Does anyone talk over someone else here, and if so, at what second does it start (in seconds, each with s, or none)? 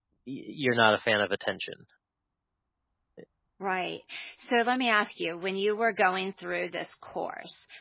none